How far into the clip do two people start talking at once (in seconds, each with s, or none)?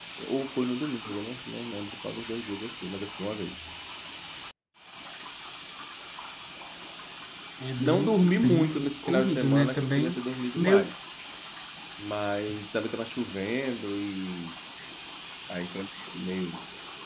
7.8 s